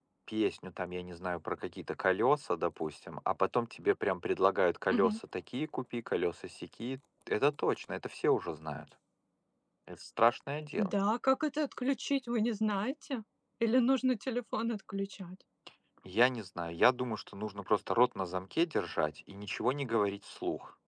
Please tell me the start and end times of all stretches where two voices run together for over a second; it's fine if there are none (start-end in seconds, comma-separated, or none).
none